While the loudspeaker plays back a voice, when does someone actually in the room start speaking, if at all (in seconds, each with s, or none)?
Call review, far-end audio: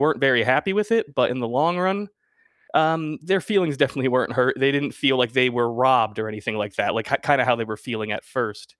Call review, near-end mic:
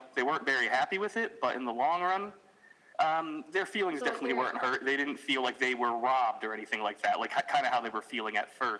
3.9 s